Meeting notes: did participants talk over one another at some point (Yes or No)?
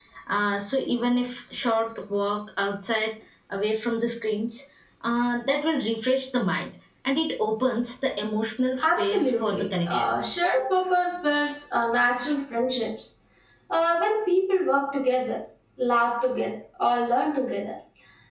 Yes